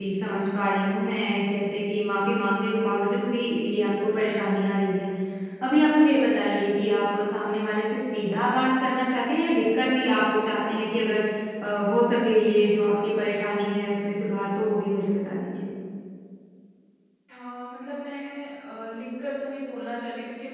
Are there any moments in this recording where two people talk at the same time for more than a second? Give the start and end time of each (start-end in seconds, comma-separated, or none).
none